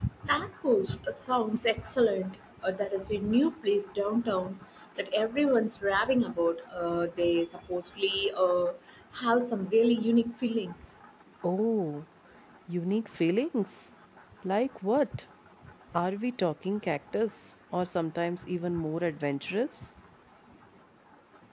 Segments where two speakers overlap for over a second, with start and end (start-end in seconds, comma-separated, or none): none